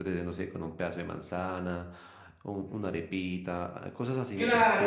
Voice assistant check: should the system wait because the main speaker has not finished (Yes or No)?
No